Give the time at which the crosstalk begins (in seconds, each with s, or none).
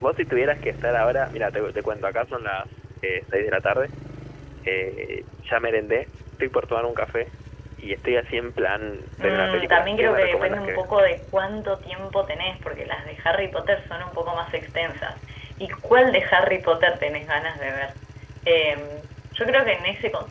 9.2 s